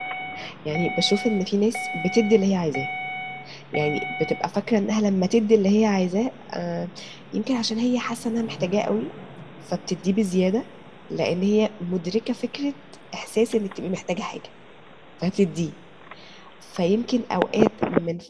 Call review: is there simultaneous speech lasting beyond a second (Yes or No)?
No